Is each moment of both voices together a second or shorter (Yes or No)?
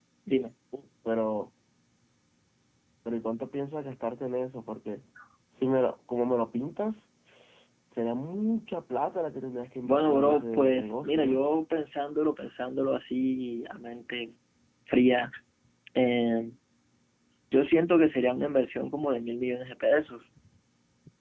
No